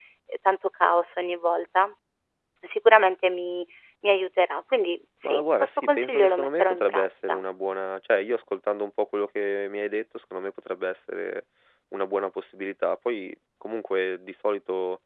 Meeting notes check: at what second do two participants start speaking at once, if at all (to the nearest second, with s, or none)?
5 s